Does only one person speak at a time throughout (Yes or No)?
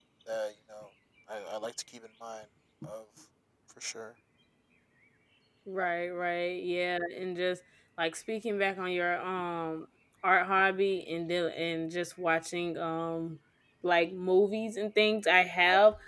Yes